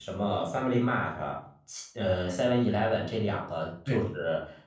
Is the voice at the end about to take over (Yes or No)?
No